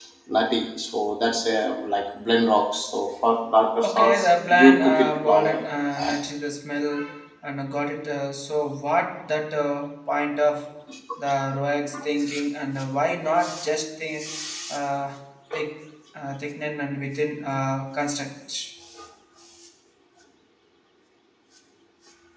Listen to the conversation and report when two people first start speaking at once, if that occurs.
3.8 s

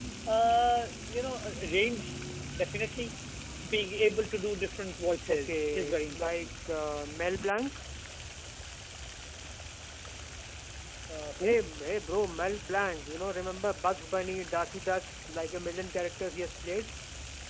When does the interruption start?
5.3 s

